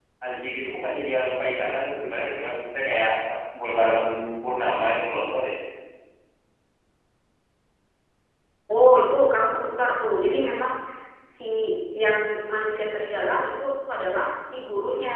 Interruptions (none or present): none